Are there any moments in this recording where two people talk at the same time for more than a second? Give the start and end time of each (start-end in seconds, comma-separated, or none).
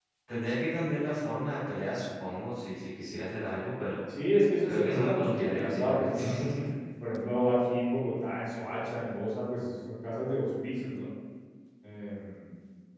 4.7-6.3